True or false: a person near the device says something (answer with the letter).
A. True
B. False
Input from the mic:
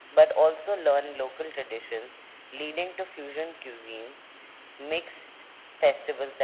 B